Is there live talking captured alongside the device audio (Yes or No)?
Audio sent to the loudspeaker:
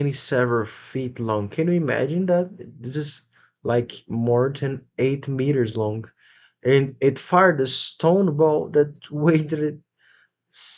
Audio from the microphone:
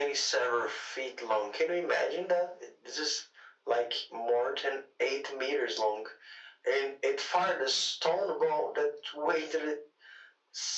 No